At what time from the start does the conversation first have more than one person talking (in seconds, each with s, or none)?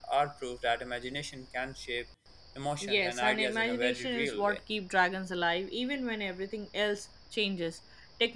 2.8 s